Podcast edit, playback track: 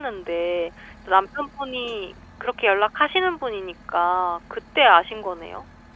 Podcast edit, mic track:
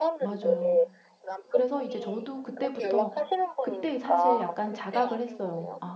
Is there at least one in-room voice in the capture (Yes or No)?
Yes